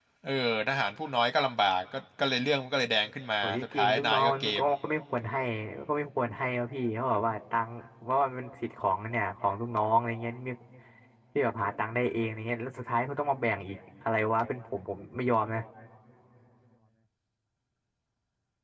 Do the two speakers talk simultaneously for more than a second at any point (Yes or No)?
Yes